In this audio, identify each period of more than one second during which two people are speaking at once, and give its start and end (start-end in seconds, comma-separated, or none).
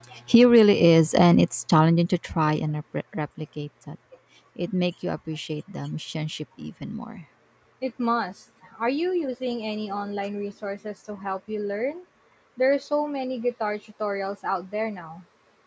none